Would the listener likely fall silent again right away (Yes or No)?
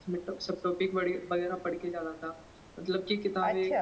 Yes